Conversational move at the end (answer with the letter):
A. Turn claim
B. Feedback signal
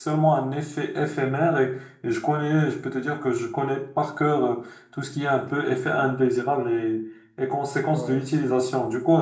B